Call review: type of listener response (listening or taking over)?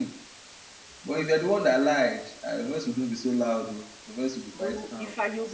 taking over